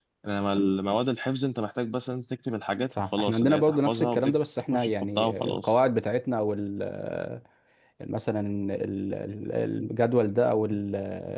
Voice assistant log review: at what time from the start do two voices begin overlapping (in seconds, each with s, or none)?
2.8 s